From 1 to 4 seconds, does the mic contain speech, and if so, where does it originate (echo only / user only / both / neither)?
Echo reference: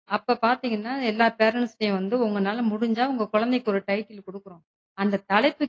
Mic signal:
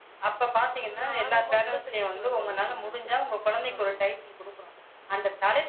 both